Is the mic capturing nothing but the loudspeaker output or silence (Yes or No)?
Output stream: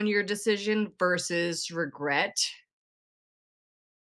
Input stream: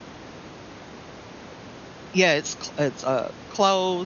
No